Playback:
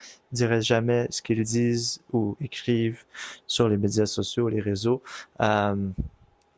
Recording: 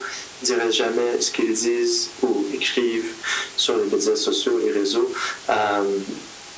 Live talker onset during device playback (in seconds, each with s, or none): none